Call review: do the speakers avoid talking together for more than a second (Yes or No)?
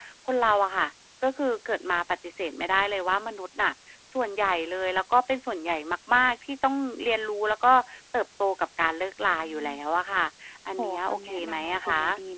No